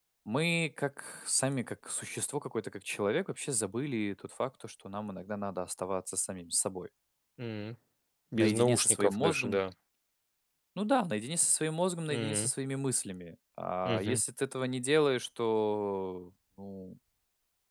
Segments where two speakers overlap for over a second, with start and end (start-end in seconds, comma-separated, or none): 8.3-9.6